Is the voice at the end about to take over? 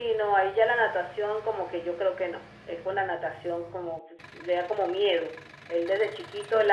No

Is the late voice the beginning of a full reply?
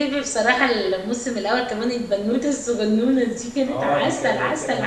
Yes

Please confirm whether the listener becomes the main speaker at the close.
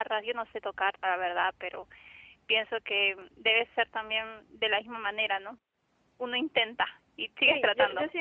Yes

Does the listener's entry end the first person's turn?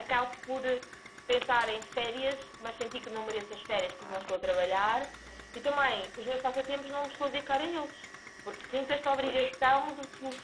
No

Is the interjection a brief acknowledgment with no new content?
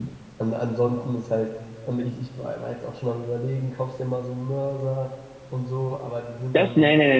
No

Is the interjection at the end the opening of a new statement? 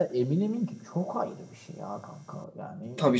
Yes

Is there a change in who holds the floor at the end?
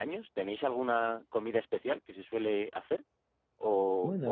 No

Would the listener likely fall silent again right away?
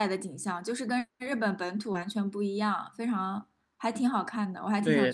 No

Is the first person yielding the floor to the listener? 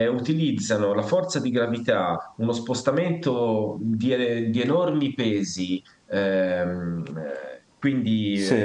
No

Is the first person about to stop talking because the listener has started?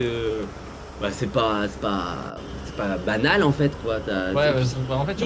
Yes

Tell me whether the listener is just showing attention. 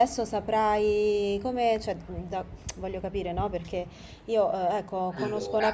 Yes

